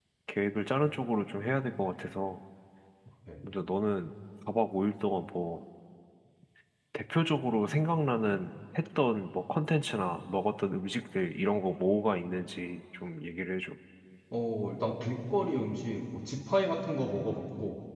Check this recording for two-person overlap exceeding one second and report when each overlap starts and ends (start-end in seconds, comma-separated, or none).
none